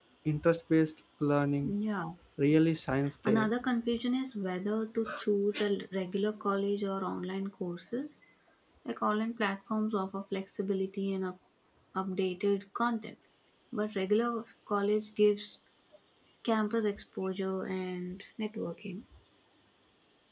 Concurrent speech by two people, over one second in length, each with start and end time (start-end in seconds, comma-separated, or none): none